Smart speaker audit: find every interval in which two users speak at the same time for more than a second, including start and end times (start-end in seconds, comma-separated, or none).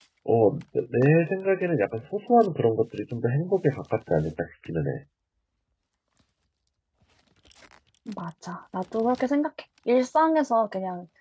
none